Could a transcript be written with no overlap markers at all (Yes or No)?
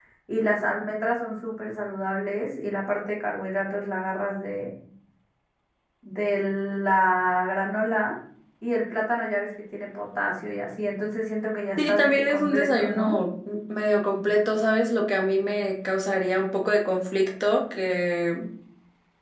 No